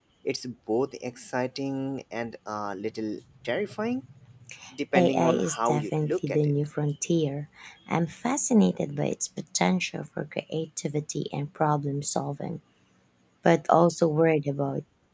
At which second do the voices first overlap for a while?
5.0 s

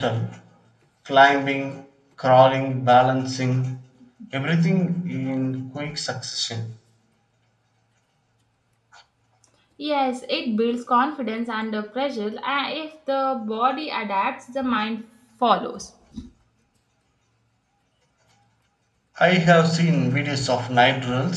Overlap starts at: none

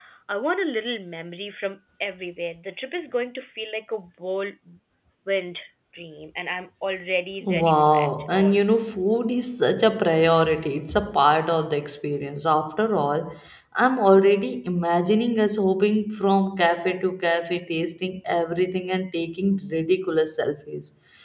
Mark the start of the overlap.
7.4 s

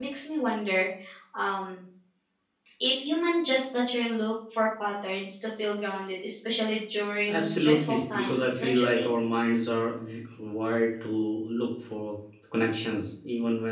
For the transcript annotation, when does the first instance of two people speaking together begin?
7.3 s

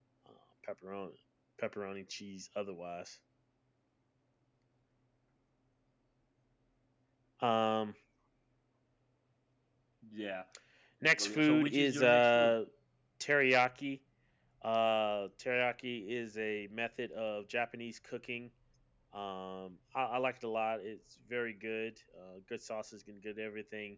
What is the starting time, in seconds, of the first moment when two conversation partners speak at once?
11.2 s

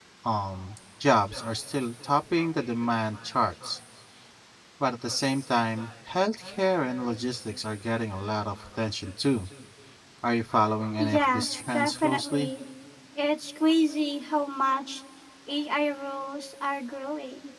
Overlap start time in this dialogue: 11.0 s

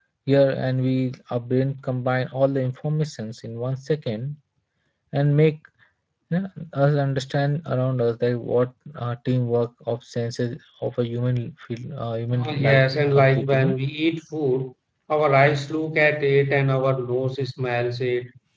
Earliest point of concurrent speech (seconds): 12.3 s

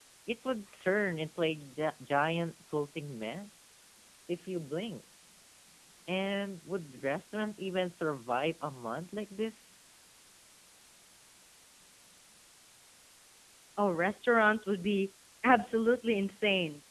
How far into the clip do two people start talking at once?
none

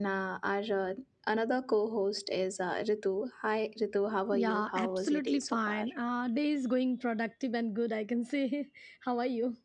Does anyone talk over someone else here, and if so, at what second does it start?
4.3 s

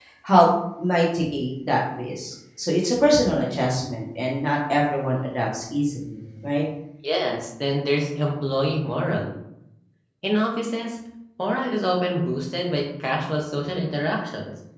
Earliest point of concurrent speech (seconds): none

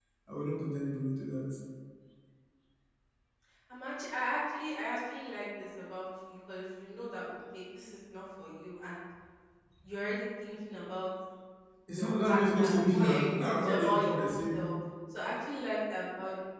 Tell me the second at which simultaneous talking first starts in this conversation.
11.9 s

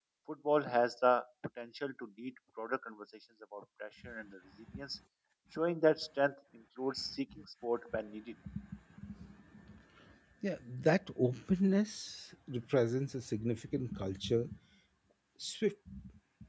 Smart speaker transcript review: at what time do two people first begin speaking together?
none

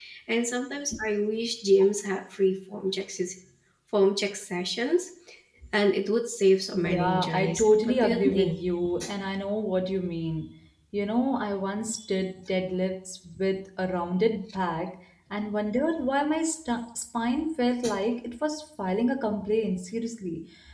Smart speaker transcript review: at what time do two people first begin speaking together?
6.7 s

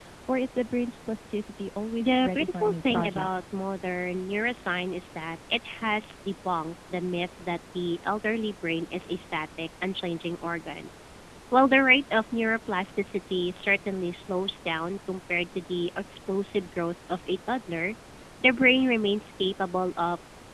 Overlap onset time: 2.0 s

